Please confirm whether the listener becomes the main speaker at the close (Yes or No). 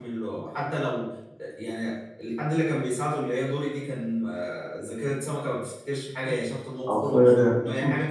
No